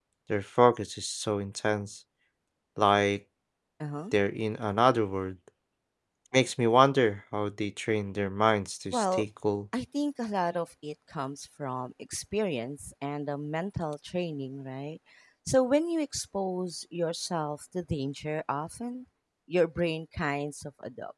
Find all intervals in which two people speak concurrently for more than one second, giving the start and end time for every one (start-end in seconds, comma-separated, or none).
none